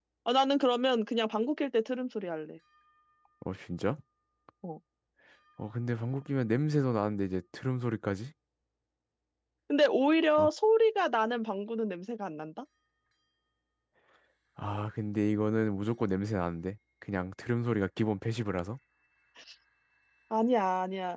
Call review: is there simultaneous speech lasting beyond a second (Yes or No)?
No